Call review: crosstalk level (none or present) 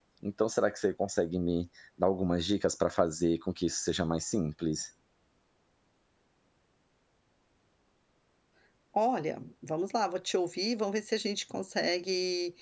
none